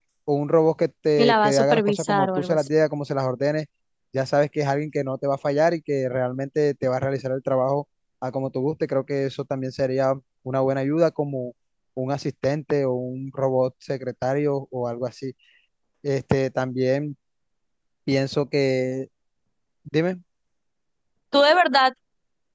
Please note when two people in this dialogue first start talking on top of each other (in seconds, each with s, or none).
1.2 s